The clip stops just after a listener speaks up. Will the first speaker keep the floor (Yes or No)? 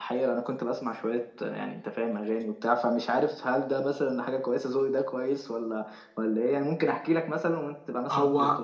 No